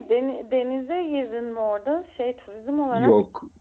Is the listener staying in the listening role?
No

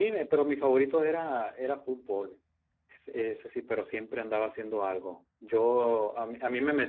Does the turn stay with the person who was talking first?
Yes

